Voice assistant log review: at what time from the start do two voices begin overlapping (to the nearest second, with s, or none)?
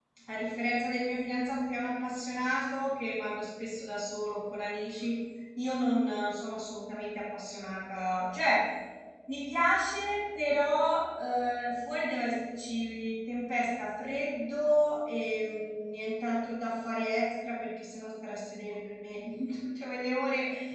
none